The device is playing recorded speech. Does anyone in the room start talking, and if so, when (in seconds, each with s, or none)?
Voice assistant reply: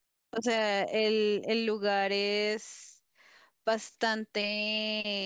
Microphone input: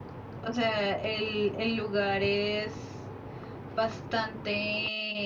none